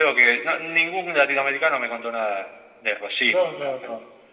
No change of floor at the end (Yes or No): No